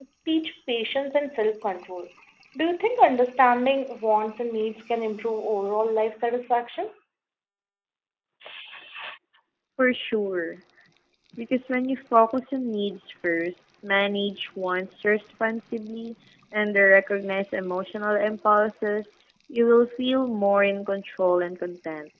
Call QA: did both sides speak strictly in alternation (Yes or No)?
Yes